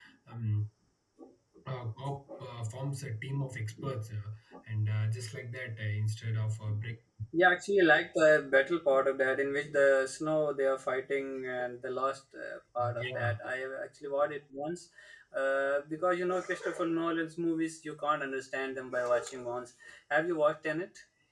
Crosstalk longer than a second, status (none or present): none